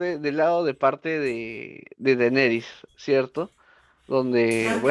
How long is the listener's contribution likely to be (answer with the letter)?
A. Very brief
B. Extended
A